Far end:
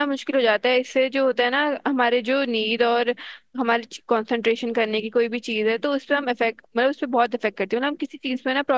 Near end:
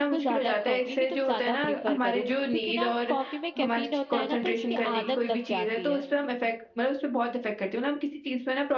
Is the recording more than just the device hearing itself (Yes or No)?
Yes